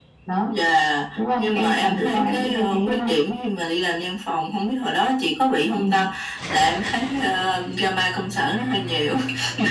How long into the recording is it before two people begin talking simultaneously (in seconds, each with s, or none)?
1.4 s